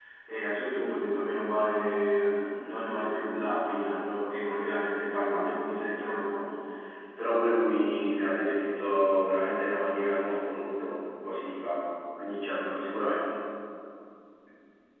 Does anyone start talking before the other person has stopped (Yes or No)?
No